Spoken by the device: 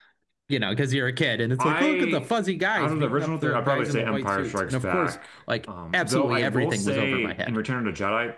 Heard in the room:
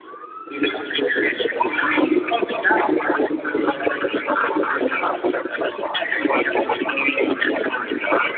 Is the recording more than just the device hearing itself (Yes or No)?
No